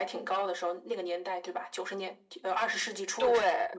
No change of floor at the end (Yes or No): No